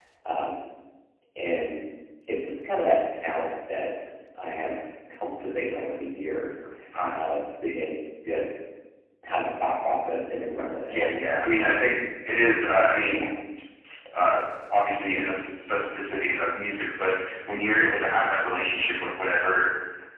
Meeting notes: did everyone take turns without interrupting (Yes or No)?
Yes